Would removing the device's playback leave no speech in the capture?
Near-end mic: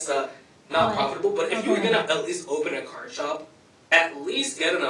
No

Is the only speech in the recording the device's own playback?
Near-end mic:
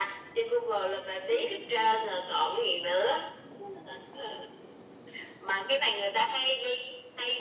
Yes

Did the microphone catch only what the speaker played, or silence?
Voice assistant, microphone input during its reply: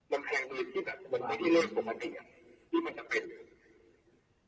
No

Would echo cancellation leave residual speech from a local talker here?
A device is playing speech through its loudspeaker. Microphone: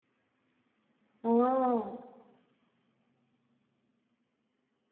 Yes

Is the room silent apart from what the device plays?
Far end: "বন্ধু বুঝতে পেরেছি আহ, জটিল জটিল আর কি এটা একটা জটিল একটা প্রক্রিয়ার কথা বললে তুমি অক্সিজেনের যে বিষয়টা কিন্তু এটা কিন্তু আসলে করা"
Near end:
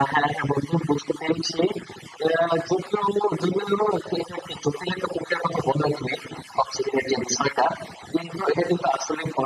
Yes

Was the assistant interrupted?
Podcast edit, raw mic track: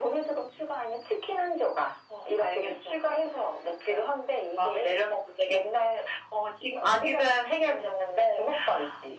No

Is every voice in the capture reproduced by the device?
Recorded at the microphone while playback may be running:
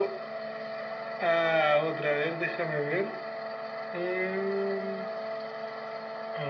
Yes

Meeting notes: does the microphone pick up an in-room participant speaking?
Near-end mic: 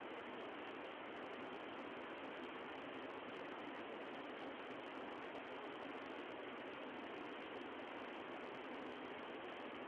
No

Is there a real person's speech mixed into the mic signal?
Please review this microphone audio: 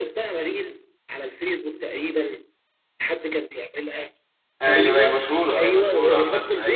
Yes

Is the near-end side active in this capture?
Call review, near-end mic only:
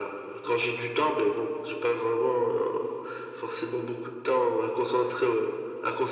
No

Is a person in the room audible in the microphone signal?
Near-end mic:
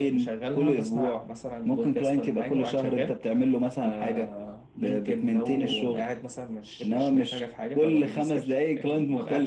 No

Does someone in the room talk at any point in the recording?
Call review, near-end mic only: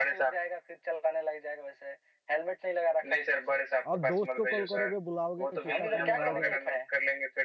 Yes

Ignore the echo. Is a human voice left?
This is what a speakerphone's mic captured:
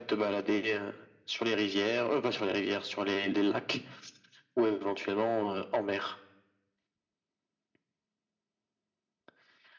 No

